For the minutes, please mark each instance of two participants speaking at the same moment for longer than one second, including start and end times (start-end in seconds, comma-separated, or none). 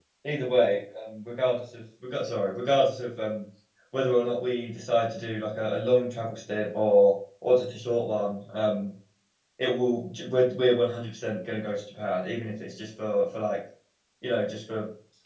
none